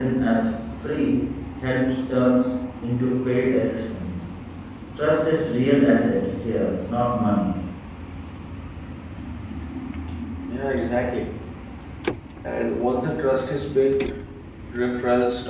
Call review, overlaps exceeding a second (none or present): none